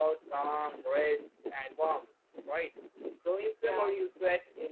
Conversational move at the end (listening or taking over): listening